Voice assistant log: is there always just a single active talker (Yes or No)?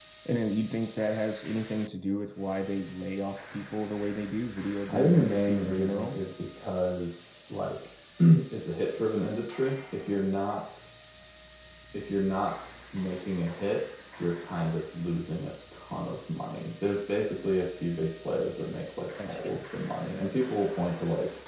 No